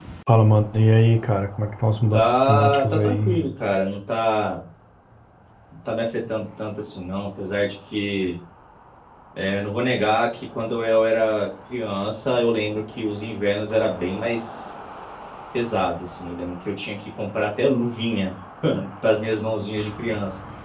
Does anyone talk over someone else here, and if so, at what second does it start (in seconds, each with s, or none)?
2.1 s